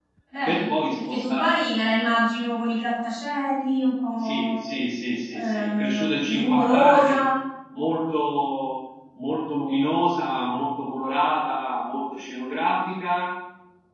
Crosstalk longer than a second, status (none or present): present